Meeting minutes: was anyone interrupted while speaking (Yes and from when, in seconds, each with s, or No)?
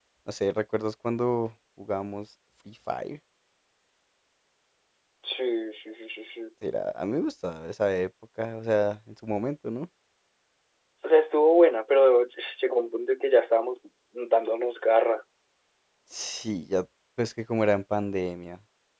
No